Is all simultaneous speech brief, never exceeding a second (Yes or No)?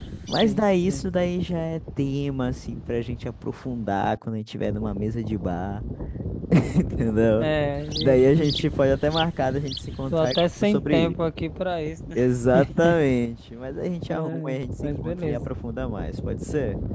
No